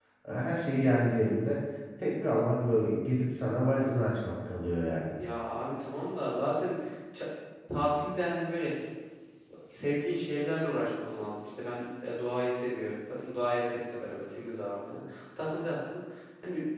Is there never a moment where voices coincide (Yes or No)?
Yes